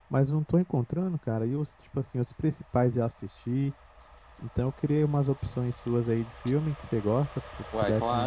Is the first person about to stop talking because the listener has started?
Yes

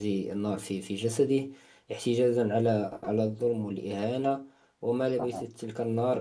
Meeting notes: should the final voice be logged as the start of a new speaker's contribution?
No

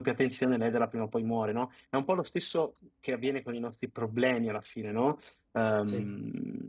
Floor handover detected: No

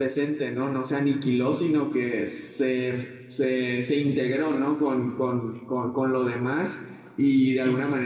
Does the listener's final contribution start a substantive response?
No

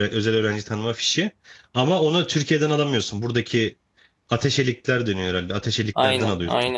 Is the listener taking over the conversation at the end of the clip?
Yes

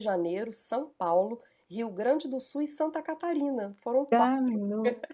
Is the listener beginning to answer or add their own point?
Yes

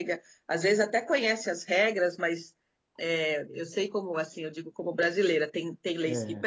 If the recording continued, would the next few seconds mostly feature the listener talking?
No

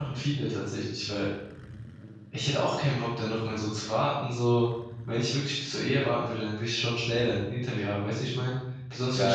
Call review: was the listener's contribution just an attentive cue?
No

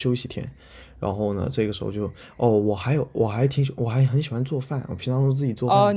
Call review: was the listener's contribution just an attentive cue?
No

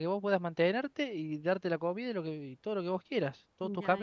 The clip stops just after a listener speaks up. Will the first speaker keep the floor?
No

